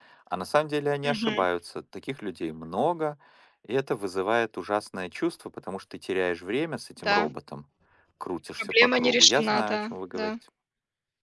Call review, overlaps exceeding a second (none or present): present